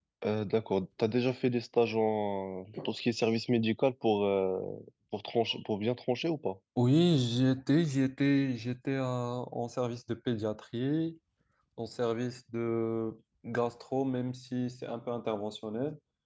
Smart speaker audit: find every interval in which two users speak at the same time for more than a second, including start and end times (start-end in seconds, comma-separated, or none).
none